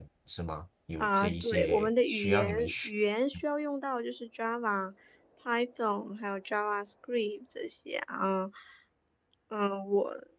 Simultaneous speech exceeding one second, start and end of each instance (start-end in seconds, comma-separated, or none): 1.0-2.9